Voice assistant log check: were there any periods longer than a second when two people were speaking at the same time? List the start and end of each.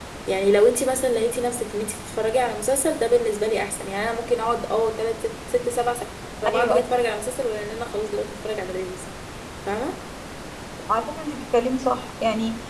none

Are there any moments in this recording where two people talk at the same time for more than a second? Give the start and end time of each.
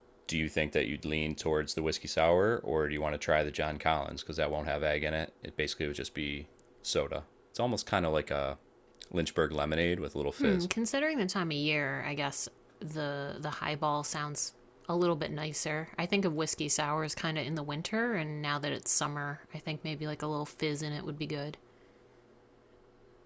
none

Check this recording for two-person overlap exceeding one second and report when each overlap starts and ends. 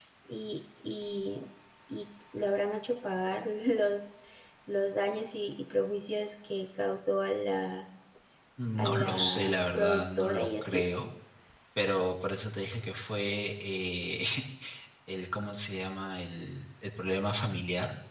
8.8-10.8

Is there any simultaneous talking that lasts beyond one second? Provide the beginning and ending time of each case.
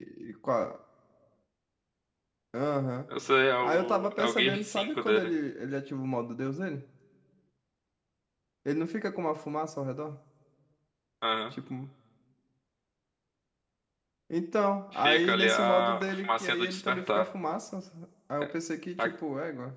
3.6-5.3, 14.9-17.2

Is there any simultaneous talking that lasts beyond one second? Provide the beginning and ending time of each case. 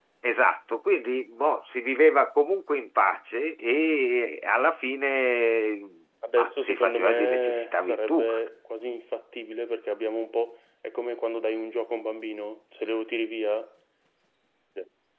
6.4-8.2

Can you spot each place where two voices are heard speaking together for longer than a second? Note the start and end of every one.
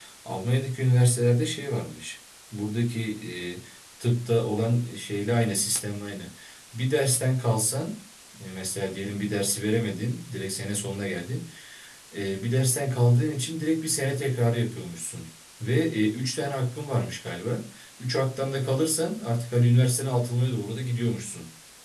none

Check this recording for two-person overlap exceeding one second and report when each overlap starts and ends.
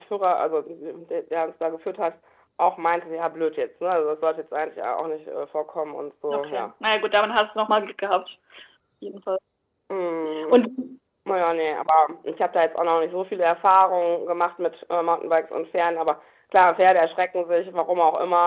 none

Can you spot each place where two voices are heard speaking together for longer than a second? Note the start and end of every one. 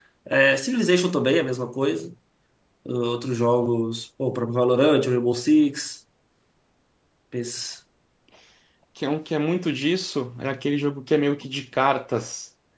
none

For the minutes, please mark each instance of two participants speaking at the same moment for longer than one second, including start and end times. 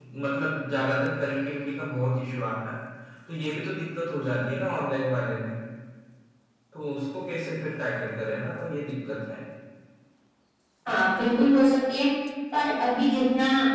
none

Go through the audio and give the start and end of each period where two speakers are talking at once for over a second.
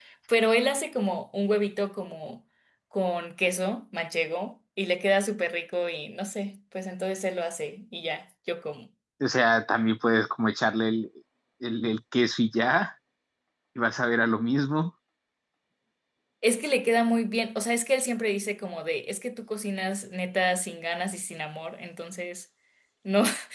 none

